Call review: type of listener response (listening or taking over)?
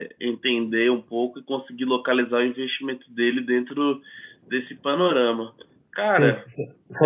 taking over